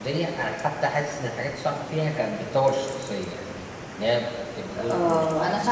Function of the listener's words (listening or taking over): taking over